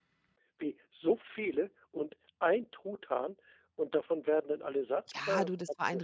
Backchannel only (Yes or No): No